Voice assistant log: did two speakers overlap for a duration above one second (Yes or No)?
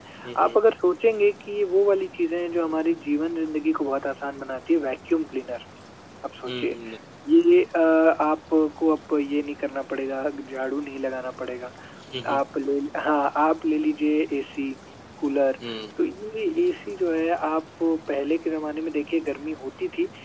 No